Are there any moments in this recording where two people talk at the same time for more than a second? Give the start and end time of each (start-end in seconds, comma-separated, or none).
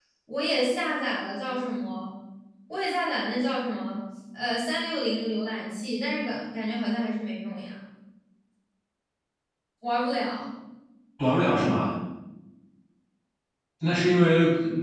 none